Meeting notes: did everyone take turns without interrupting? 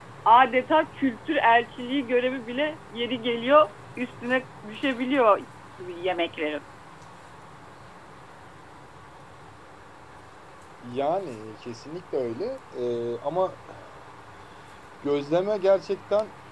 Yes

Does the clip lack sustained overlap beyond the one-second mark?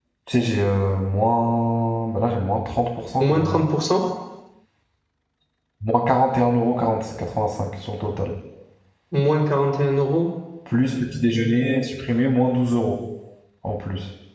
Yes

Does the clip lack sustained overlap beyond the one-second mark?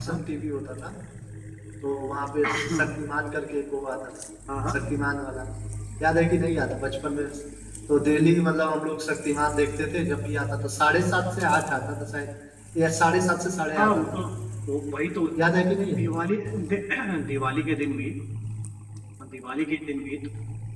Yes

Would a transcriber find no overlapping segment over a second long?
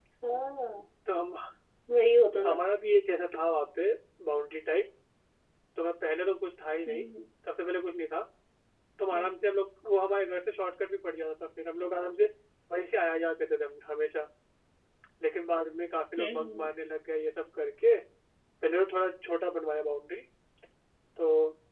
Yes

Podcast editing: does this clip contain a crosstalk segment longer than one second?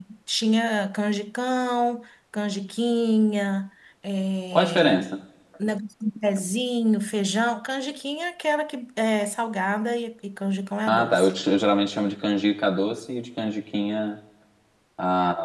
No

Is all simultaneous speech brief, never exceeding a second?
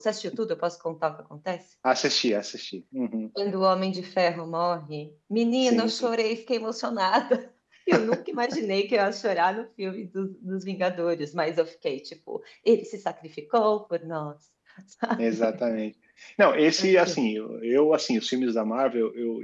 Yes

